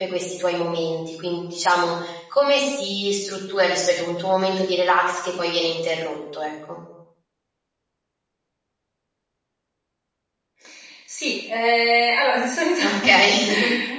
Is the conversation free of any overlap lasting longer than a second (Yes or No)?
Yes